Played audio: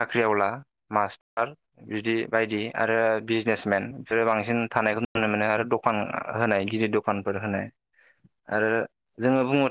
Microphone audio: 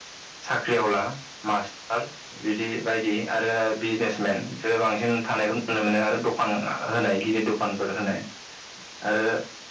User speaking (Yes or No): No